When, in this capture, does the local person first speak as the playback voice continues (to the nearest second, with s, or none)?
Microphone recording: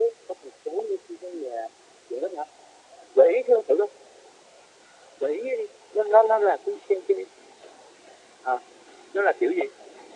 none